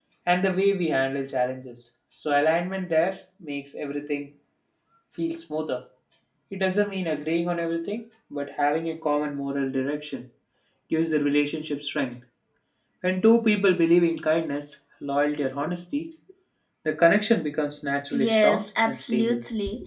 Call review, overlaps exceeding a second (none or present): present